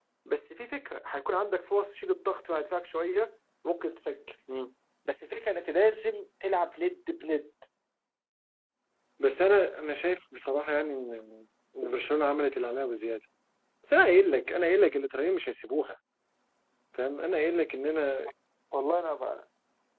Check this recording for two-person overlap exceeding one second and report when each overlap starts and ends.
none

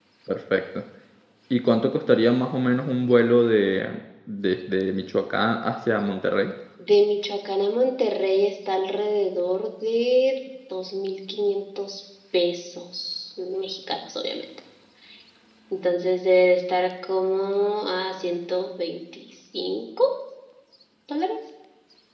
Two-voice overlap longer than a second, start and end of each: none

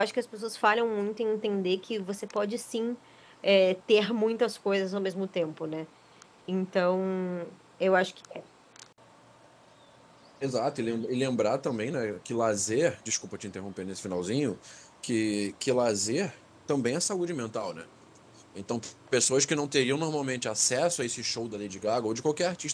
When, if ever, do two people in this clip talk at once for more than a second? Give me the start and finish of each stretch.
none

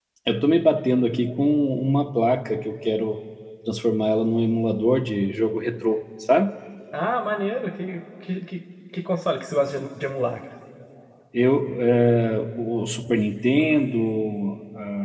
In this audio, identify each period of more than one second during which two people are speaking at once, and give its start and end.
none

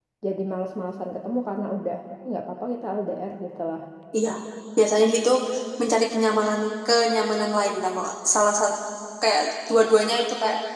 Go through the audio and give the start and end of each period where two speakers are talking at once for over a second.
none

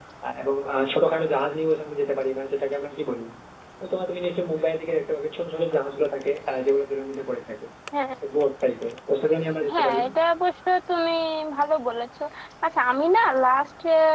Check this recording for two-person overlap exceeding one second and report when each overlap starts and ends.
none

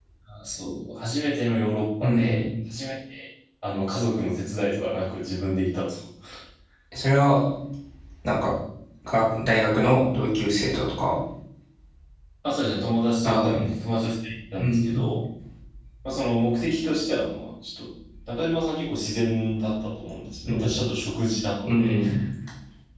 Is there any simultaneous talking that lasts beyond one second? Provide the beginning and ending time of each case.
none

